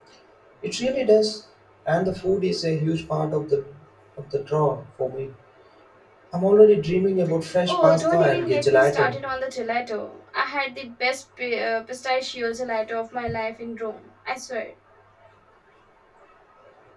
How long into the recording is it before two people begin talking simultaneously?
7.7 s

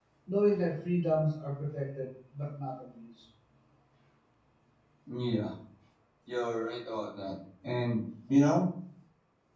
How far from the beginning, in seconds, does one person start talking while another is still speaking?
none

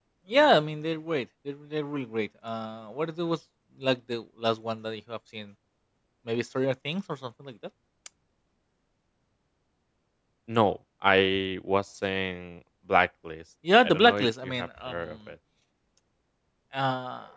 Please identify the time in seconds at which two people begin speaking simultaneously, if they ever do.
13.6 s

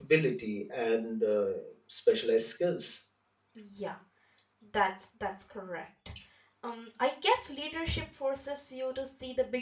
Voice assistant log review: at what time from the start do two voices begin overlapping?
none

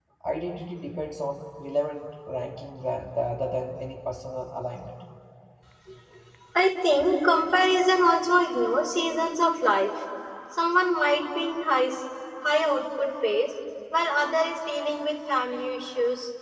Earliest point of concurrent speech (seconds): none

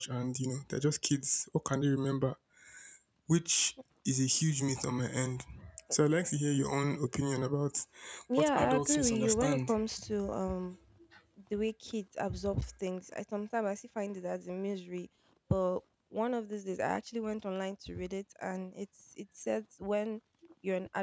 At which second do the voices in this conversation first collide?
8.4 s

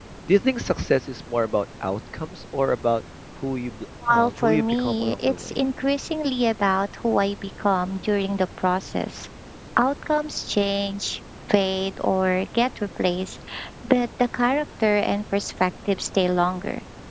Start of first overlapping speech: 4.0 s

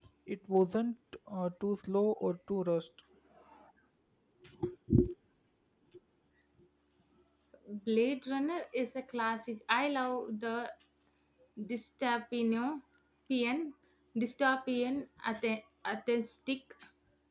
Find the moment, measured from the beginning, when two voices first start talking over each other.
none

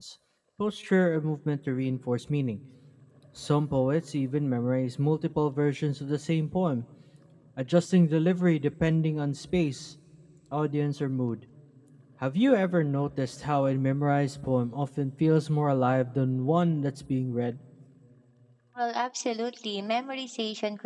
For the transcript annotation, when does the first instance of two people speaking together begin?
none

